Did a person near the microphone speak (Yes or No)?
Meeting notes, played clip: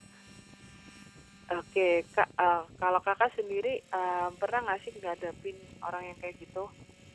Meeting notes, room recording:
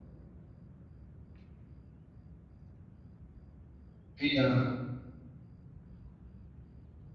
Yes